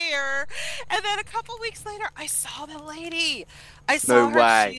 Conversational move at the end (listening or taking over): listening